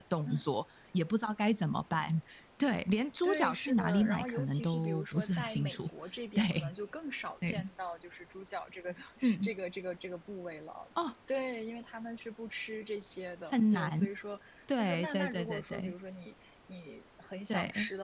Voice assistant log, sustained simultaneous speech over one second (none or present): present